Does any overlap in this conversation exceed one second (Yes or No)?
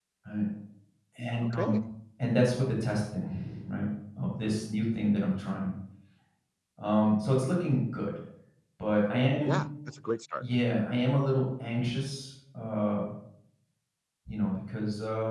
No